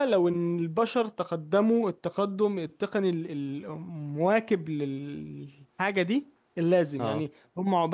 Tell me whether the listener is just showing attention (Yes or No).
Yes